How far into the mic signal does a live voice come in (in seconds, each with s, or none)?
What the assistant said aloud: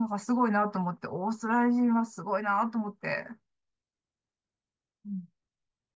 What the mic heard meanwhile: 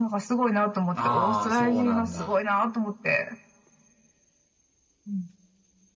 1.0 s